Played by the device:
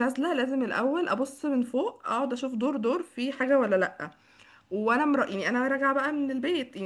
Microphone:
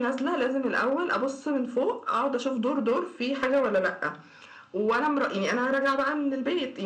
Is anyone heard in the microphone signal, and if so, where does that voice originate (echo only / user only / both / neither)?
echo only